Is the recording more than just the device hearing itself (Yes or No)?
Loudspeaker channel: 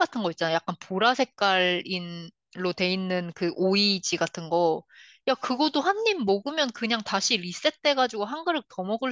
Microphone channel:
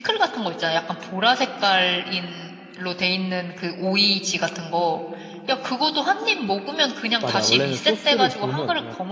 Yes